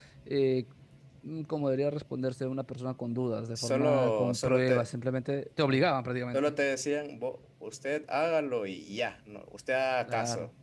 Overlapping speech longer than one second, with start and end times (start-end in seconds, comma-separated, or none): 3.5-4.9